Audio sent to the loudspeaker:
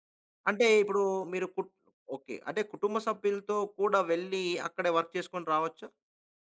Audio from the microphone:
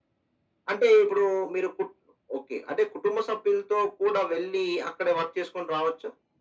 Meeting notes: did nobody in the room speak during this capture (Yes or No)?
Yes